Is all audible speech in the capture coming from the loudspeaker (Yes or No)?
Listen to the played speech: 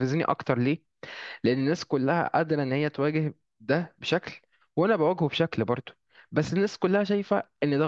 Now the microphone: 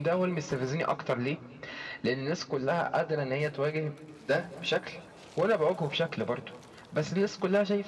Yes